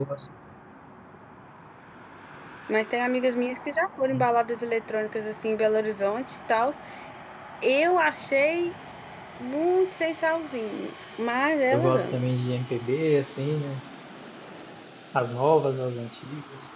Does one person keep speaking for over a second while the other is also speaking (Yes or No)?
No